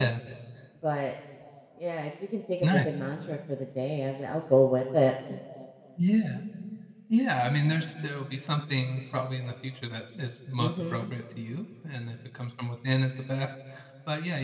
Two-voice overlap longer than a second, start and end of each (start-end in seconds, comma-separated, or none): none